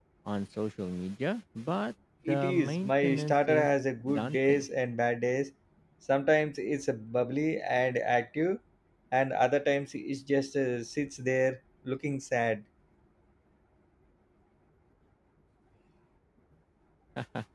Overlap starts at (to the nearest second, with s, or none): 2 s